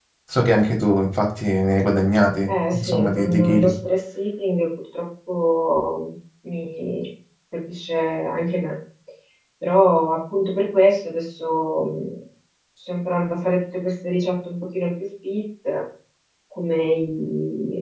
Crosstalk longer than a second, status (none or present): present